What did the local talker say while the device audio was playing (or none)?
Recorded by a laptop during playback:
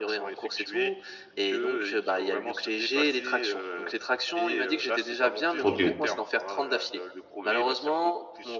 OK.